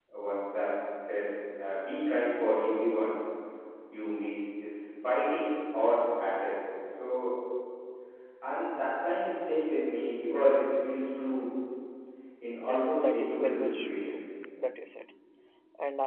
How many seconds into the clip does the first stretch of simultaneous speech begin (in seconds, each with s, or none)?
12.6 s